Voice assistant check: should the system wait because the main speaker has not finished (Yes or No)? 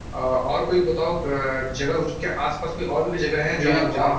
No